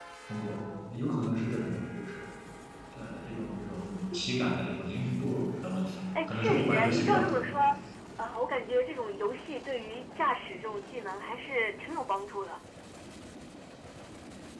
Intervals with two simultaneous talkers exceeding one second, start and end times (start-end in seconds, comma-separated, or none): 6.3-7.6